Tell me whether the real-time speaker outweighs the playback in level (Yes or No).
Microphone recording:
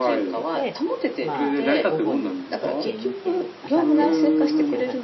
No